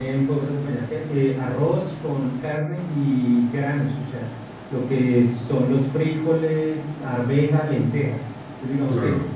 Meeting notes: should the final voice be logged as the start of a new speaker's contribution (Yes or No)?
No